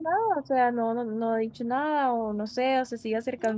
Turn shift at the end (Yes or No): No